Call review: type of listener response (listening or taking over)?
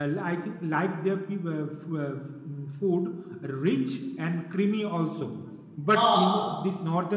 listening